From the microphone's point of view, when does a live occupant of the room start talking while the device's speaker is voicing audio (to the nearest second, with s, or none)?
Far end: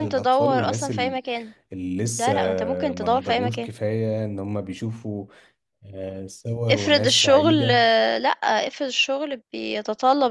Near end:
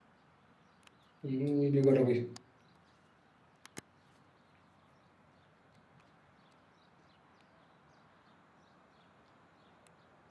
1 s